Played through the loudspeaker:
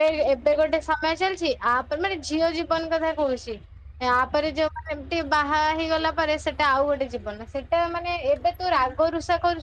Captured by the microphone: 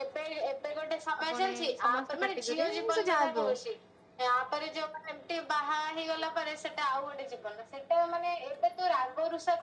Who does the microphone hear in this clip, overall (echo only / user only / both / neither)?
both